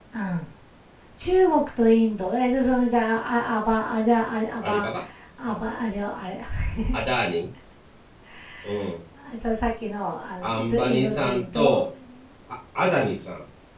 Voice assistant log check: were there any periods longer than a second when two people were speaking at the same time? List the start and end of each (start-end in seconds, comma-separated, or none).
10.4-11.9